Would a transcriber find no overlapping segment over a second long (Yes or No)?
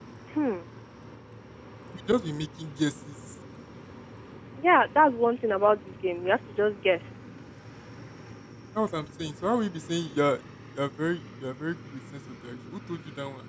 Yes